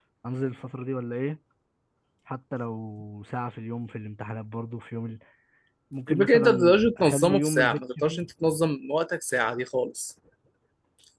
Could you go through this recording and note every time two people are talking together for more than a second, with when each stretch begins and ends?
6.1-8.2

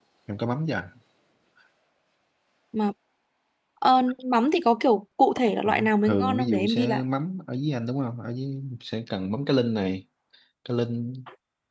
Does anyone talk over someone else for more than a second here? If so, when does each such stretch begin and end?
5.7-7.0

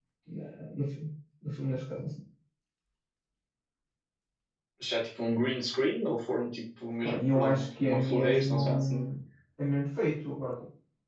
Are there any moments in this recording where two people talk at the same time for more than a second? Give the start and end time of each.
7.0-9.1

